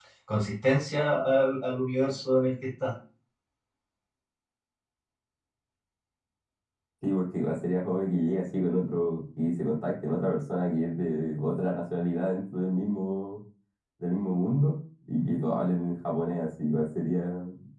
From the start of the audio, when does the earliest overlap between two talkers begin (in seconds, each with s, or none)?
none